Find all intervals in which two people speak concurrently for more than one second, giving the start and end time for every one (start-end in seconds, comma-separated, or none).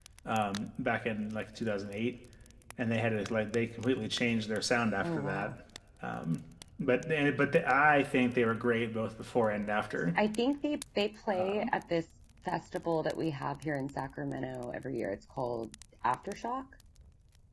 none